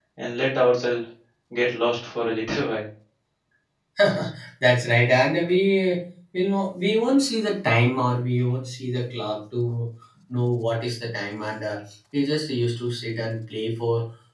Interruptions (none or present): none